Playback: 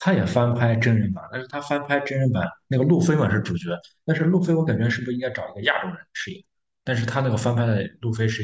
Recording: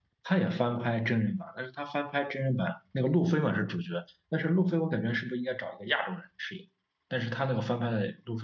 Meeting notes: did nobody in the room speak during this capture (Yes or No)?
Yes